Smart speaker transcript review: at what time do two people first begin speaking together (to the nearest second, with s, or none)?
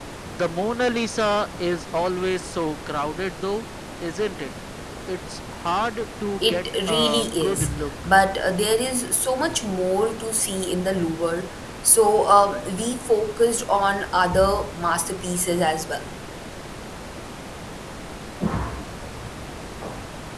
6 s